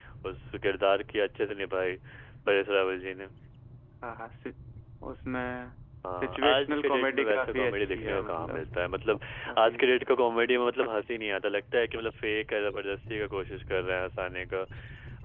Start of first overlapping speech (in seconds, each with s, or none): 6.2 s